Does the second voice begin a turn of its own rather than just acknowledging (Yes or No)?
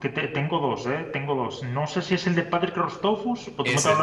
No